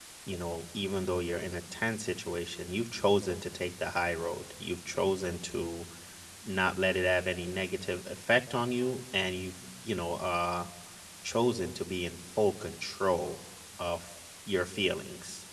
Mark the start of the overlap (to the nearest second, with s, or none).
none